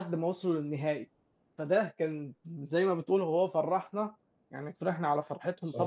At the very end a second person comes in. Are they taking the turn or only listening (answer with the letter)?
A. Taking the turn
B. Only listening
B